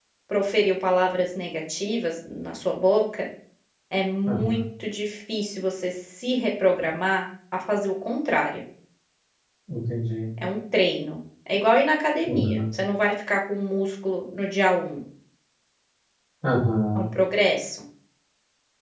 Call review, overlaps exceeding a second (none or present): none